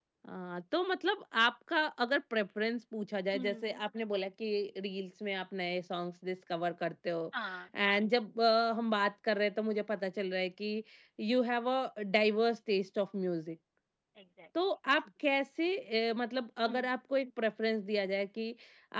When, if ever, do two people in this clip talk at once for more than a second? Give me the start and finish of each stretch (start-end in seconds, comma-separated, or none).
none